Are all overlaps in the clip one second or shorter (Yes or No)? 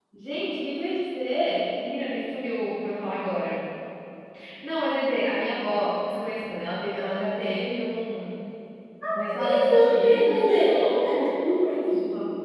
No